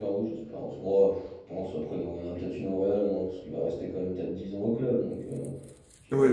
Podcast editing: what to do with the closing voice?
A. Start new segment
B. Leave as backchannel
A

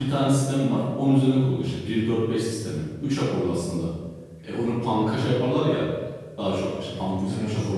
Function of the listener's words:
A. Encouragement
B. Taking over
A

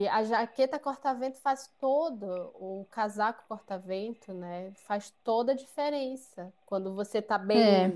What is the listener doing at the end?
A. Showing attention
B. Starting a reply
A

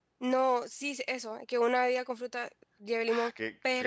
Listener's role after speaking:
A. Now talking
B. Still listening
A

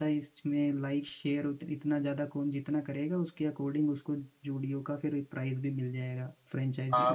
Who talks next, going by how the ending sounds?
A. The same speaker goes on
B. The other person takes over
B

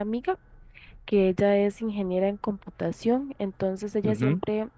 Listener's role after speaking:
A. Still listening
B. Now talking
A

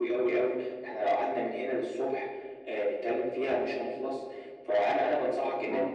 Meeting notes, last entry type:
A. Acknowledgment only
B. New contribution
A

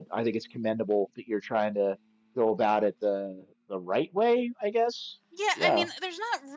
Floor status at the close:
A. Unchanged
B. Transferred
B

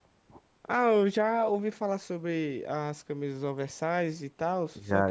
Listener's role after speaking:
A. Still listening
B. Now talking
B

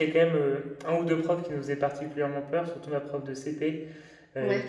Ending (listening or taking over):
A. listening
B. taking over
A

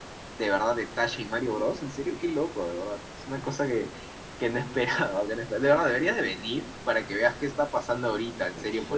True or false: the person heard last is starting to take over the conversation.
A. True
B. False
A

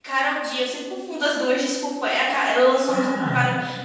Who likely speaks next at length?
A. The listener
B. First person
B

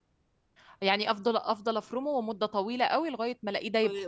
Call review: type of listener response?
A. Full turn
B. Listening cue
A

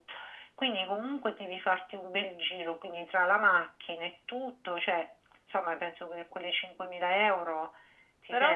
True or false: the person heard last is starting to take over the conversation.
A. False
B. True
B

